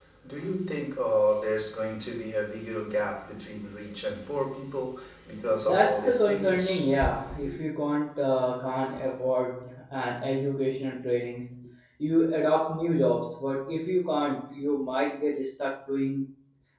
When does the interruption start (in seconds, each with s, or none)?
5.6 s